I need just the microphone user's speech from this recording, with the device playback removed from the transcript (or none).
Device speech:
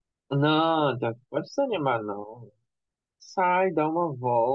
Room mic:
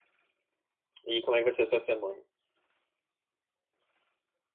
E como é que vai ser a sua semana?